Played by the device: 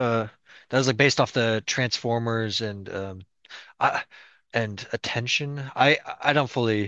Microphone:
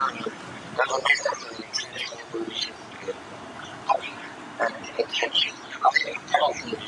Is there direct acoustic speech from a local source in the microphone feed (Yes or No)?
No